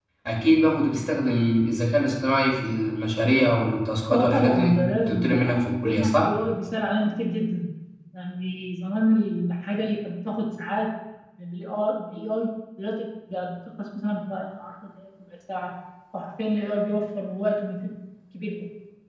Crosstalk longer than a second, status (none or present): present